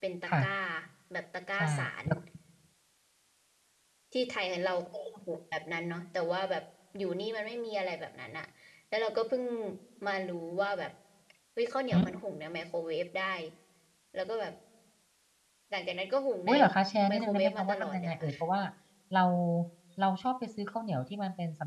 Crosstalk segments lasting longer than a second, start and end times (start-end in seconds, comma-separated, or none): 17.1-18.3